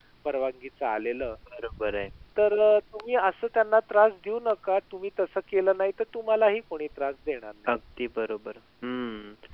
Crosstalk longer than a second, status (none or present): none